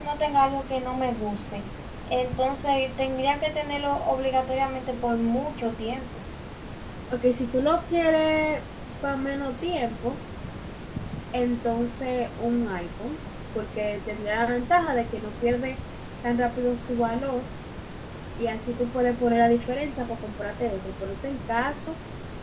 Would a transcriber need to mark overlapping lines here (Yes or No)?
No